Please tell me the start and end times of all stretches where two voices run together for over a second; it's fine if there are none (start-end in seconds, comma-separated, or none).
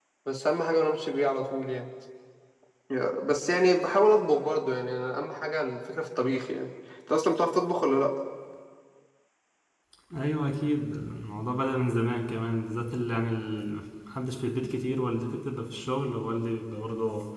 none